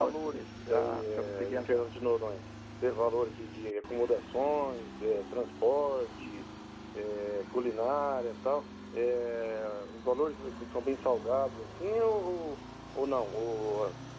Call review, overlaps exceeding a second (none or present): present